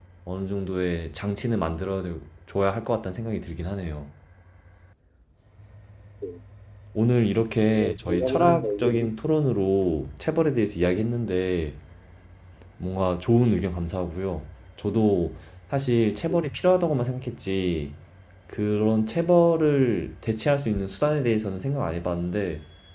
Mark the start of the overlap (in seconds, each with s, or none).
7.7 s